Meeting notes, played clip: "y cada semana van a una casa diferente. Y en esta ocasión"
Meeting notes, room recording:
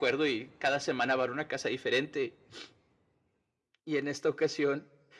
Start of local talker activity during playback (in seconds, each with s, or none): none